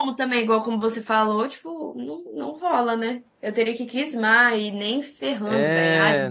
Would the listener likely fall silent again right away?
No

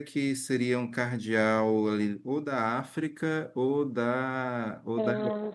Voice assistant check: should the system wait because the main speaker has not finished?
Yes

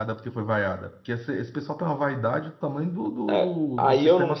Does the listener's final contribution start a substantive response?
Yes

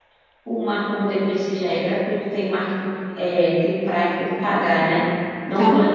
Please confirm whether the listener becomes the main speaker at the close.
No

